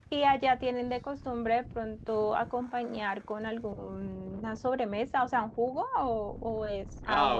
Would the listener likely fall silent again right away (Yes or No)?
No